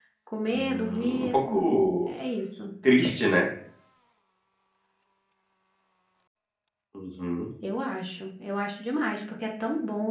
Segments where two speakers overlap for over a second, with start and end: 0.5-2.1

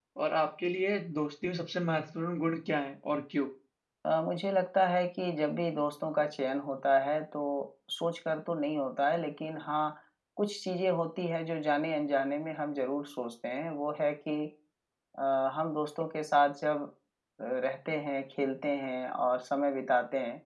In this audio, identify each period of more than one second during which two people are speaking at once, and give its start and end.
none

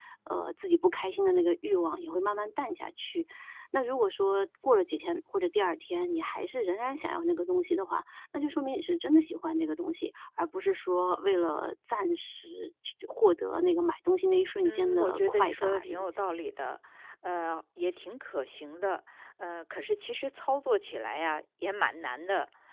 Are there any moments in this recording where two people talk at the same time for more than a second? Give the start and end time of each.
14.7-16.0

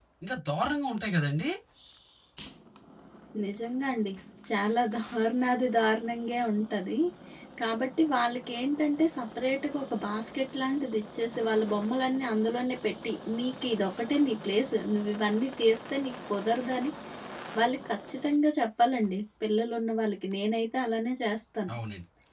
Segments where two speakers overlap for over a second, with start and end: none

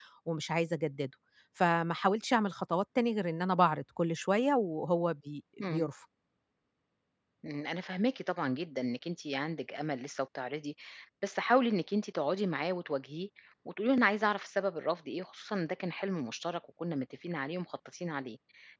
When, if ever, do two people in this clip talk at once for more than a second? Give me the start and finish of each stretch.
none

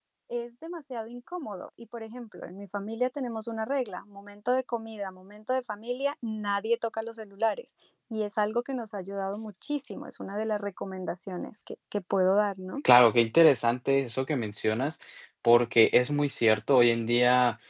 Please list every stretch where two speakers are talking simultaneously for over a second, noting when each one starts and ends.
none

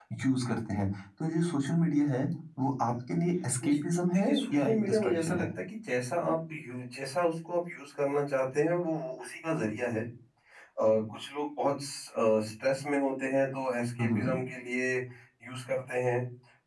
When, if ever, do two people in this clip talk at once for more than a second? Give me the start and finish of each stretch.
4.1-5.4

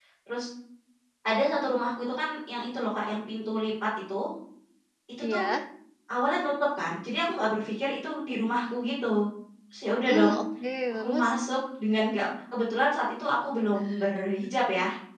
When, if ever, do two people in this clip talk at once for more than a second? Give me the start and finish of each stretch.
none

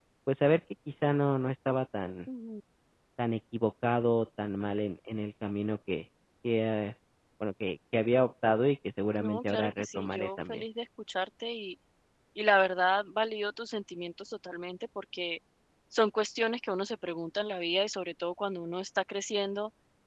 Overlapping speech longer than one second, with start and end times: 9.2-10.6

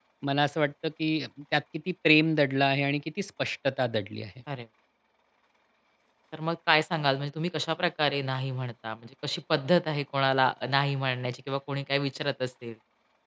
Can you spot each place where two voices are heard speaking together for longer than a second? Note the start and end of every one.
none

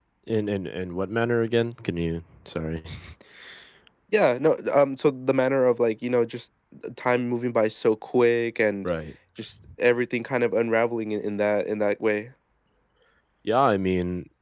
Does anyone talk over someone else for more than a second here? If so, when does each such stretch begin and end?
none

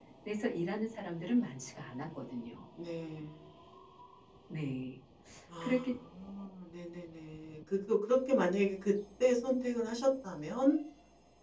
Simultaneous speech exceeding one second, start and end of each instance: none

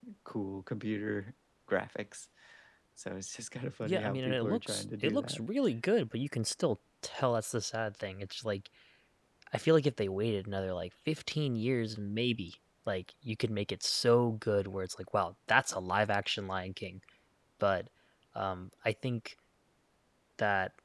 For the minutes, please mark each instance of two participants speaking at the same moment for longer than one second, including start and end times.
3.8-5.4

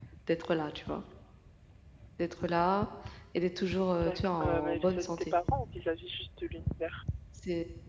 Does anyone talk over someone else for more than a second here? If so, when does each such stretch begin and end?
3.9-5.3

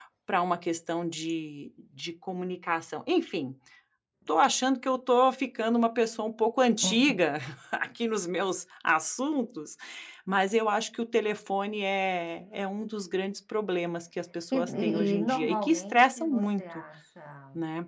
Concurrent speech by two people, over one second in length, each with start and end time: 14.5-16.6

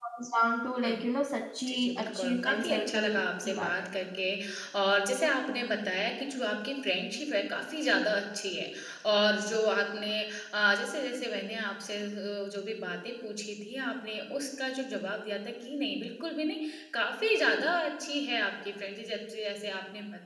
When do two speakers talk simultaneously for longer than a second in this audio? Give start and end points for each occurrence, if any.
1.7-3.9

